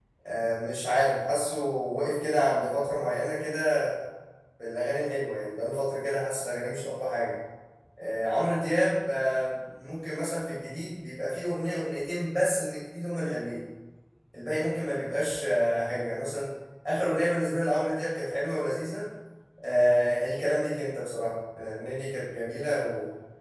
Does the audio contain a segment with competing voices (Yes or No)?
No